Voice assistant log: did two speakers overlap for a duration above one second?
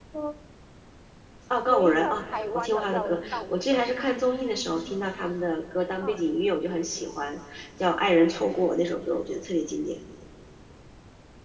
Yes, from 1.7 s

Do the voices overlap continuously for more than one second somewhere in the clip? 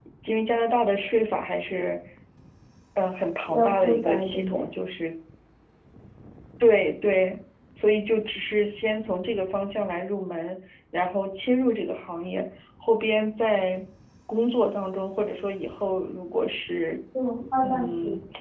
Yes, from 3.4 s

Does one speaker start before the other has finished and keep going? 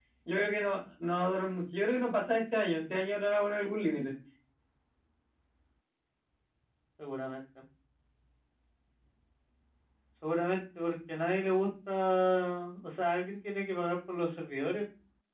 No

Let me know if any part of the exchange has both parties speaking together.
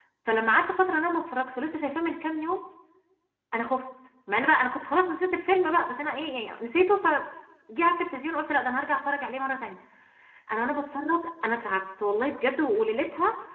No

